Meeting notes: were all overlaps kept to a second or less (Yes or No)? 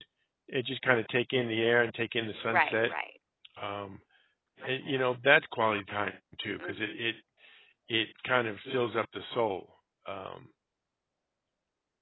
Yes